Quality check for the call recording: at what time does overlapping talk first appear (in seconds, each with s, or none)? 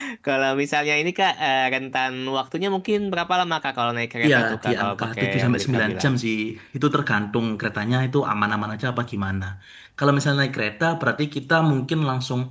4.2 s